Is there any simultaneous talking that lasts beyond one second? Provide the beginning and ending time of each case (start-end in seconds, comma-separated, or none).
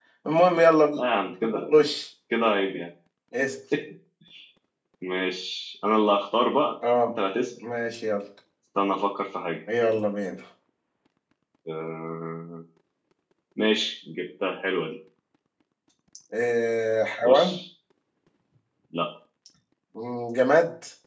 none